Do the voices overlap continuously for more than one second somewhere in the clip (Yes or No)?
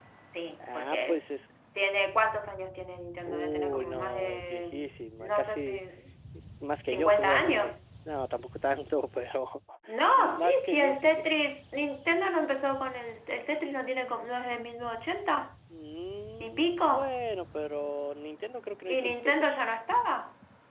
Yes